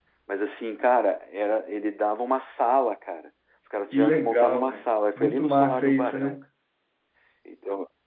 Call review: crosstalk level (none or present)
present